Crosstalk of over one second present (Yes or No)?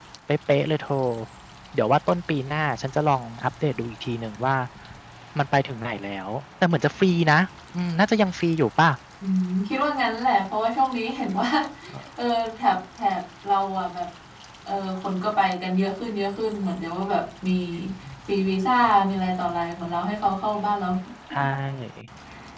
No